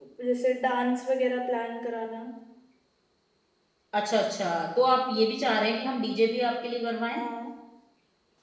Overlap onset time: none

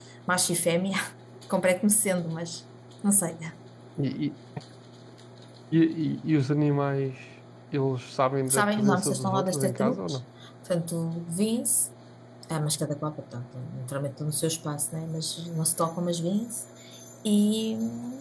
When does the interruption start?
8.5 s

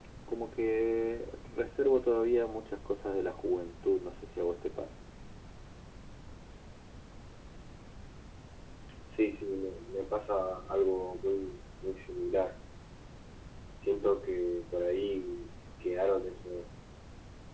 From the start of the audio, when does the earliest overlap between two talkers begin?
none

